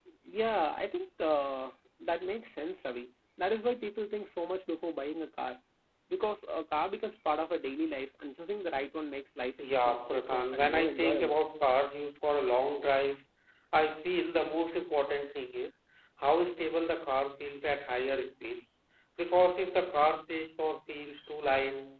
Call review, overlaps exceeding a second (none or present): present